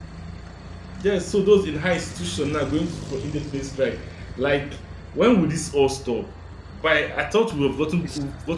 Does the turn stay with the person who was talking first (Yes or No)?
Yes